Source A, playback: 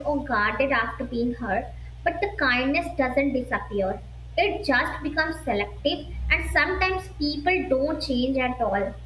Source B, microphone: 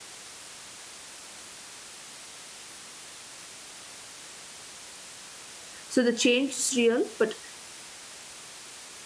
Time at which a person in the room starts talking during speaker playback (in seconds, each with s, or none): 5.9 s